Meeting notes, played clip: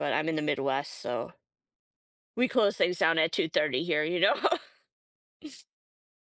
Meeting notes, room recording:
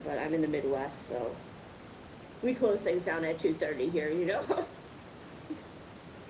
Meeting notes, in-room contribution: none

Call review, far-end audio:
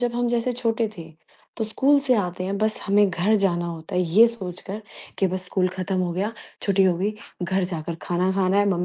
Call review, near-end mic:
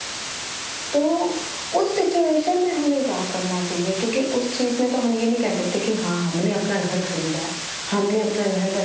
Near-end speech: present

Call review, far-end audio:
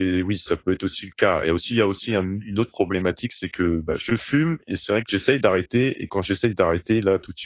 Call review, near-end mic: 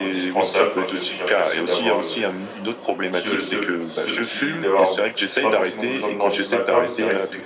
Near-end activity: present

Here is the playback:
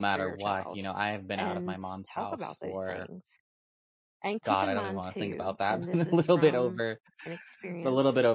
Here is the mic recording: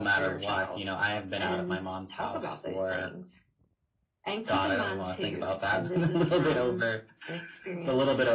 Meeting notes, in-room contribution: none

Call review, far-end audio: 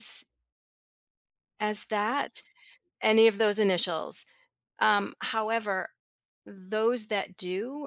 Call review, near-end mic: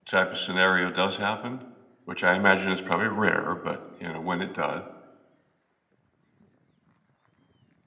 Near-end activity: present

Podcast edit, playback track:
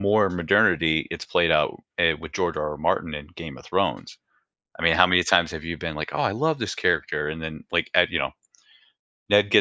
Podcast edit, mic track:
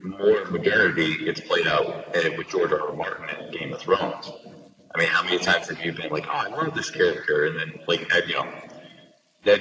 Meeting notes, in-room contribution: none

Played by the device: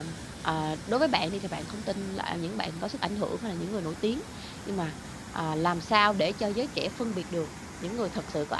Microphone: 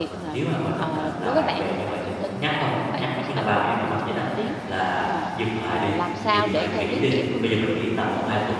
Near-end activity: present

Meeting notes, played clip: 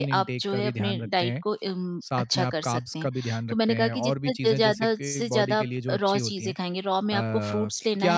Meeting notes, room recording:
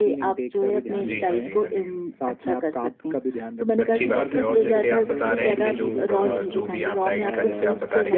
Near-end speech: present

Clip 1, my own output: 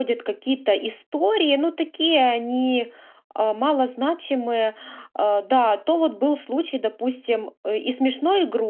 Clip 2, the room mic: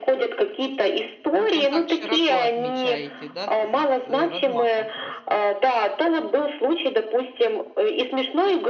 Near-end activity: present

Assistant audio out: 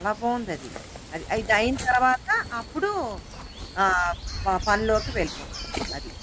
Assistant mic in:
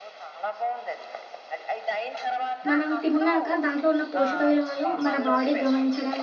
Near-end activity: present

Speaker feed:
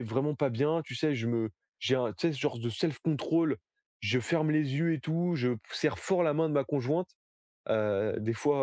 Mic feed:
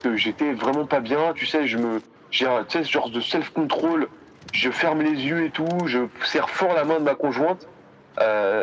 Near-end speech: none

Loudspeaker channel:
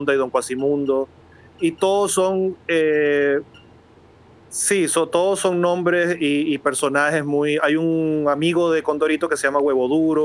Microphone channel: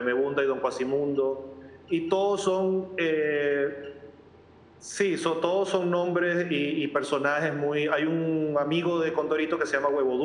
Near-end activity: none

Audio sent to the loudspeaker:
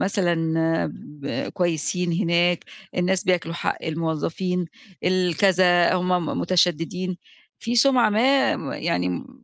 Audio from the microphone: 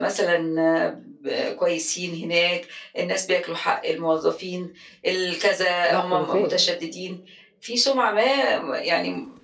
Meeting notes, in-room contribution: present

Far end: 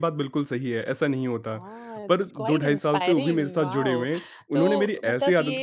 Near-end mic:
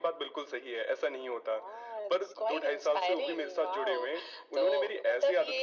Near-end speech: none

